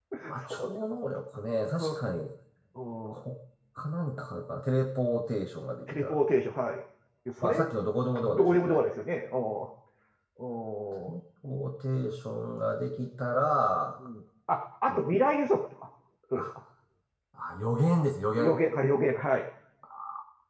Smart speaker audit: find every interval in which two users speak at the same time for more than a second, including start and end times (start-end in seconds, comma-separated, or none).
none